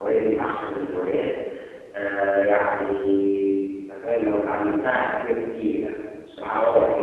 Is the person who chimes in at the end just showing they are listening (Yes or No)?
No